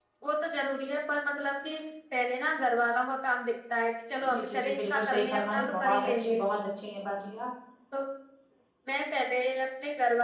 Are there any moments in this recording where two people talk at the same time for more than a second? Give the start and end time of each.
4.3-6.4

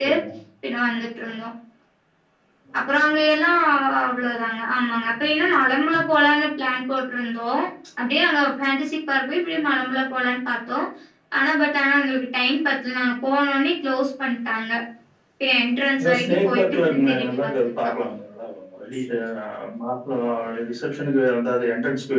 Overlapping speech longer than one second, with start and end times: 16.0-17.7

